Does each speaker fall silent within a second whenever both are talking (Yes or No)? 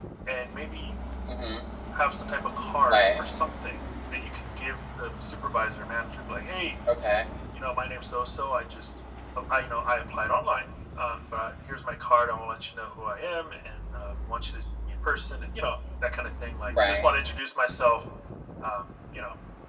Yes